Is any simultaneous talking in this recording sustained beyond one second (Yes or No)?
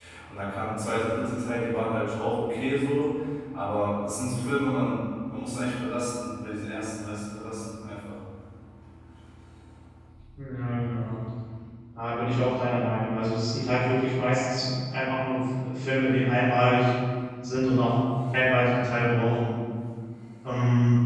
No